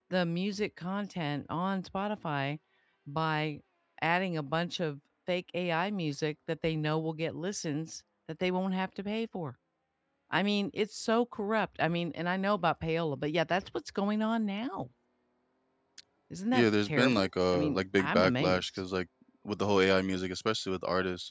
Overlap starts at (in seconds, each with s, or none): 16.5 s